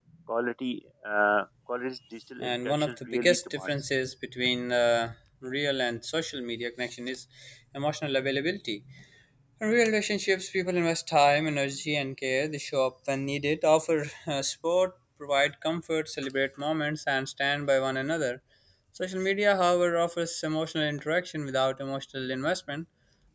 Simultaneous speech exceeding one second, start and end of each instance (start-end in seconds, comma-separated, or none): 2.4-3.7